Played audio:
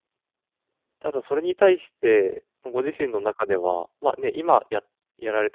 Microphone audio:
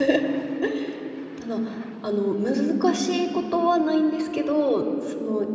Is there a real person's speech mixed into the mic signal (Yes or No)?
Yes